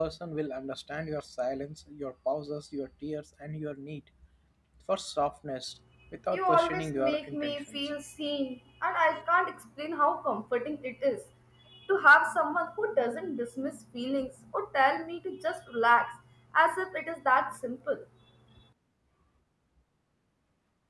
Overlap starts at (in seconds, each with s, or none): 6.3 s